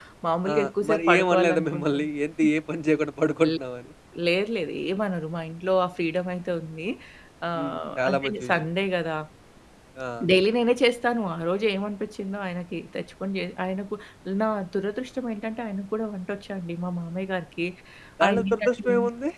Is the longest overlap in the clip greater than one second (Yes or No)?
Yes